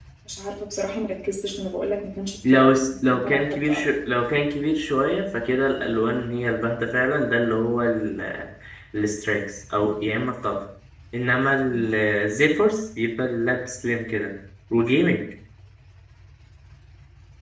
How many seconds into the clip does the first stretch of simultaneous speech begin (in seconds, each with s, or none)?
2.4 s